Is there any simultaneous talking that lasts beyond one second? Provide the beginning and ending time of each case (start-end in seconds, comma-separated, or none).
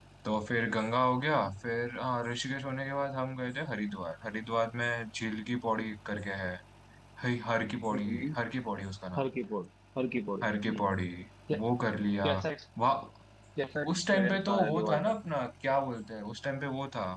13.9-15.2